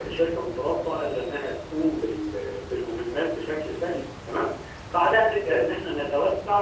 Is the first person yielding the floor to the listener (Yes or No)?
No